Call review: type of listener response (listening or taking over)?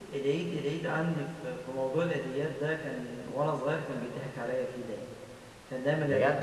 listening